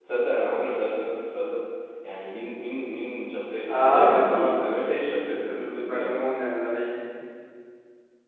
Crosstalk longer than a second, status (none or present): present